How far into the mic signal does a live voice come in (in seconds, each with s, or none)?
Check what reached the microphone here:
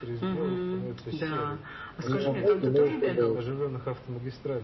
2.0 s